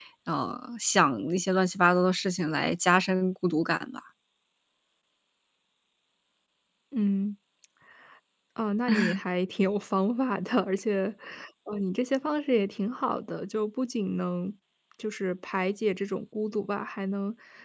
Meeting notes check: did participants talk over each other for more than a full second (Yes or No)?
No